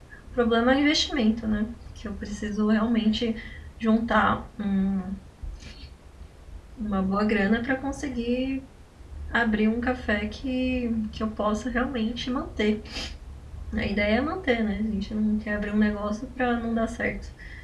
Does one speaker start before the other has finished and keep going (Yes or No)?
No